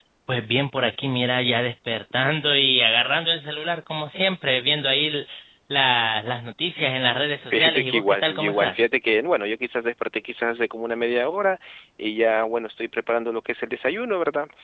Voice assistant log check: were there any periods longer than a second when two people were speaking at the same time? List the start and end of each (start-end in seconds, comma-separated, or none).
7.5-8.8